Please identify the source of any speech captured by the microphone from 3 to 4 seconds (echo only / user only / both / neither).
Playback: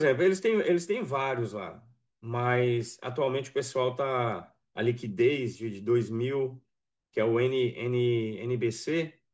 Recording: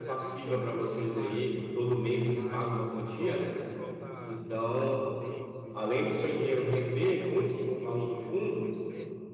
both